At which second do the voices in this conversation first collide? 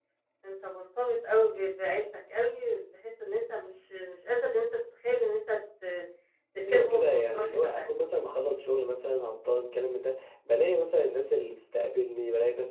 6.7 s

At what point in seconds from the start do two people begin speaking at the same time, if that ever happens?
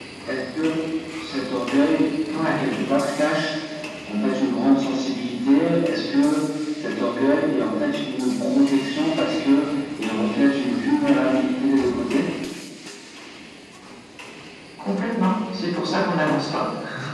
none

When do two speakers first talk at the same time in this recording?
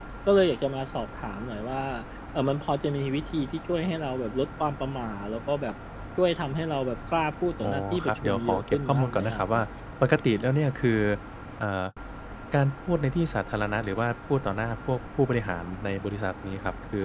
7.6 s

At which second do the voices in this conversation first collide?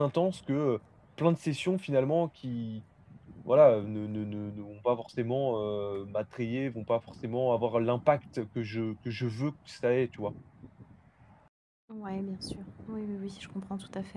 none

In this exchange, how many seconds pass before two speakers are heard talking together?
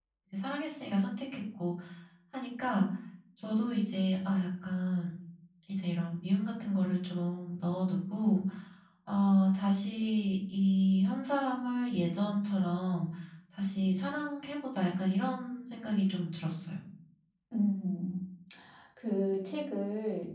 none

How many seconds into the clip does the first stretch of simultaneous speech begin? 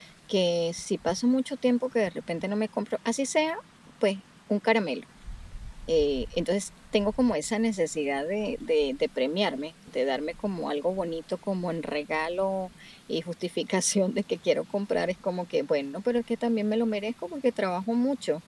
none

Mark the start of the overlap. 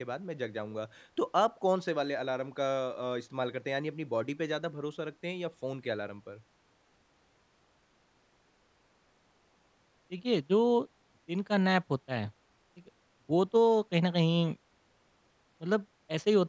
none

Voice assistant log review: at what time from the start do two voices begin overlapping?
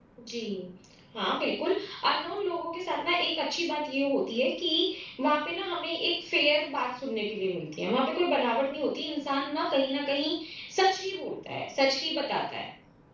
none

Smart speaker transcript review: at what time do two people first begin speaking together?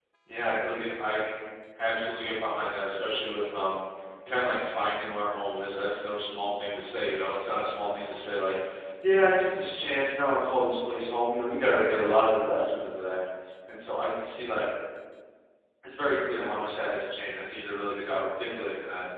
none

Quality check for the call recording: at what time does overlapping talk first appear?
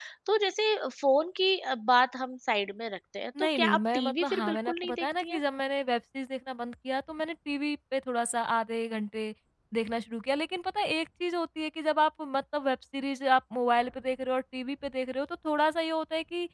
3.4 s

